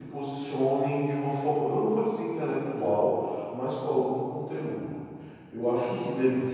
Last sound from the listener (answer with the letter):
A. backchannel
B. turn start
A